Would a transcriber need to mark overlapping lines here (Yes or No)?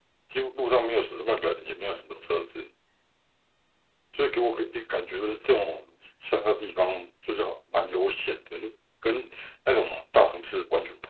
No